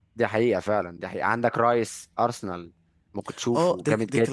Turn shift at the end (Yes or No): Yes